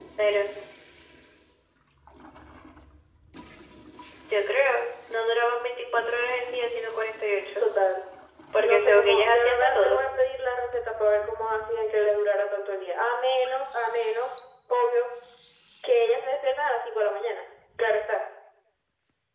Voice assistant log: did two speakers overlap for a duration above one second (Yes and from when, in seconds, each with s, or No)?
Yes, from 8.6 s